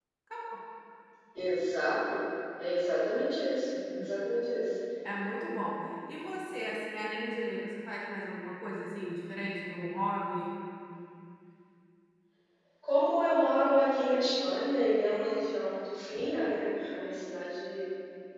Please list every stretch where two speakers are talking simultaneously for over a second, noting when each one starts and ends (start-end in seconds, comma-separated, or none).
none